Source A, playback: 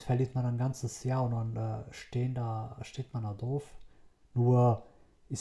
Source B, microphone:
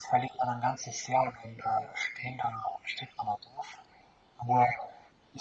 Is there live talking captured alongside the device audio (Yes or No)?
No